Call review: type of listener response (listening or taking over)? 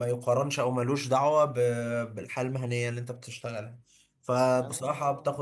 listening